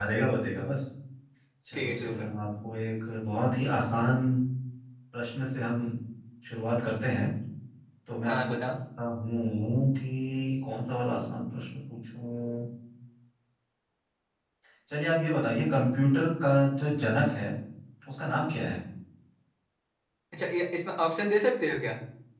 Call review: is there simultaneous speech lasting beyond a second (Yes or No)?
No